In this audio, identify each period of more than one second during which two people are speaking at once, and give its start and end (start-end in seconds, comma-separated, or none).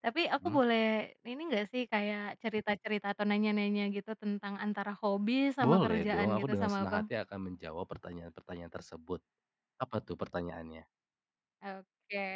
5.6-7.0